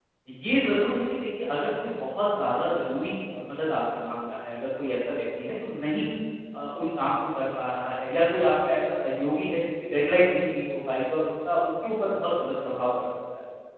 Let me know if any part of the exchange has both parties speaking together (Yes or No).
No